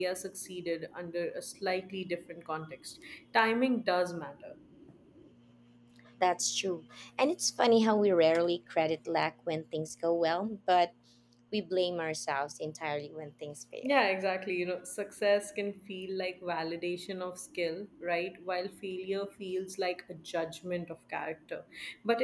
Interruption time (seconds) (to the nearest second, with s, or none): none